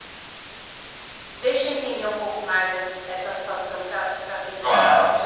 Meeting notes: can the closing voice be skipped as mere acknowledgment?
No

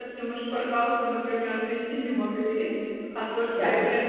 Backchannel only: Yes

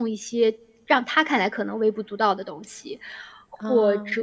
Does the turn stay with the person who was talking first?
Yes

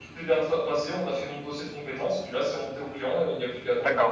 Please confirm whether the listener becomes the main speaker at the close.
Yes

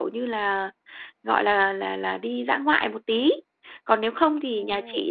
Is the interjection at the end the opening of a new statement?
No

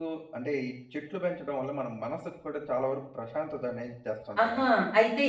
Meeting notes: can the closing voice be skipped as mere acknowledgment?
No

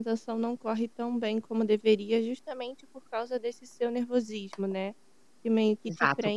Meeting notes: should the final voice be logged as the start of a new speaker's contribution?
No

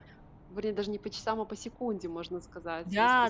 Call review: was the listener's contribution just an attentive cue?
No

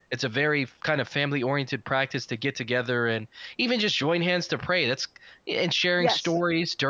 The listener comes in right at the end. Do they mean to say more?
No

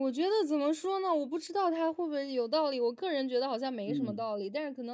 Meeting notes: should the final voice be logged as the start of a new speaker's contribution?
No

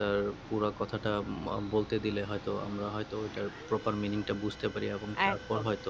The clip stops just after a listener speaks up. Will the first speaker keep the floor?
No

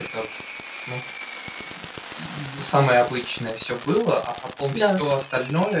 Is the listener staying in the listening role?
Yes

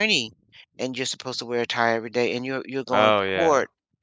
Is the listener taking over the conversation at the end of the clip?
No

